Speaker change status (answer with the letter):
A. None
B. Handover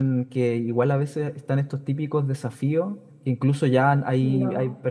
A